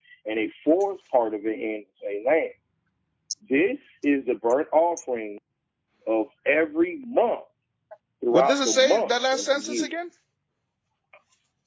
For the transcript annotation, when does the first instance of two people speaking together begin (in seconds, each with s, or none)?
8.3 s